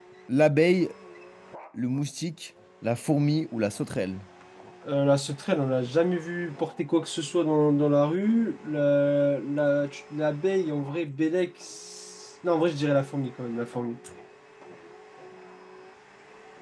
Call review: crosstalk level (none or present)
none